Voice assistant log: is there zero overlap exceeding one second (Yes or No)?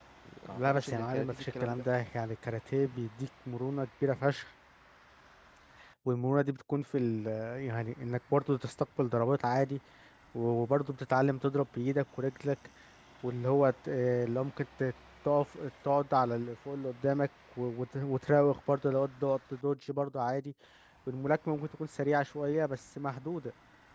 No